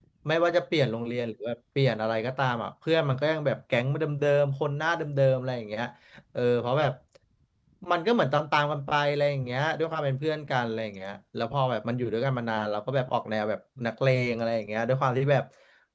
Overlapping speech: No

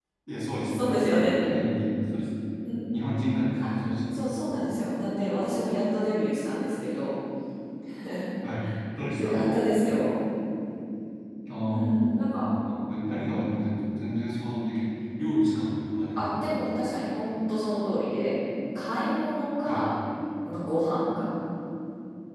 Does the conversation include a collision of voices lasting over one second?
No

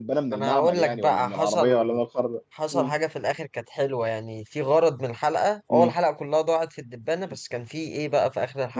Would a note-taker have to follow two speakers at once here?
Yes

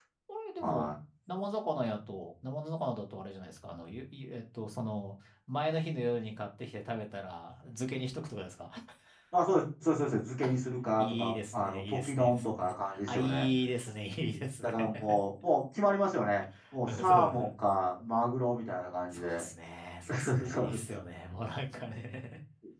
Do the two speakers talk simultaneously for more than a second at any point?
Yes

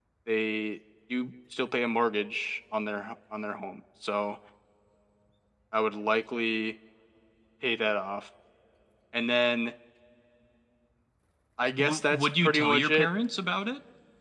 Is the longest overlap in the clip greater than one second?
Yes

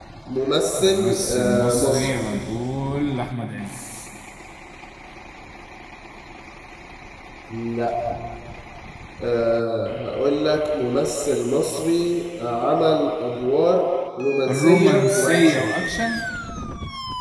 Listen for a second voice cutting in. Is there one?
Yes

